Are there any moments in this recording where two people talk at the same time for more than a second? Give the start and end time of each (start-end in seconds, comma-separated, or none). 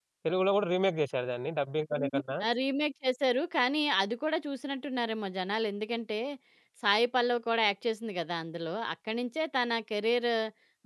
none